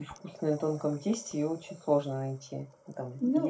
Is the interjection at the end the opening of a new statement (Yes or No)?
Yes